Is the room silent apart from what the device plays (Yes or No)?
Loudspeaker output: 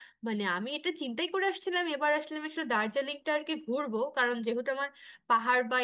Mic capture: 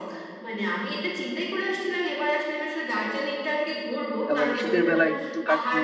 No